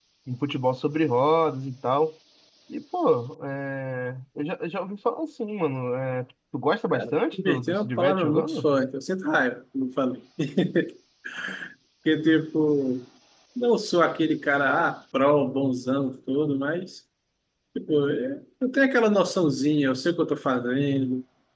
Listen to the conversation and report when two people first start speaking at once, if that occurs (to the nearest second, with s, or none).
7 s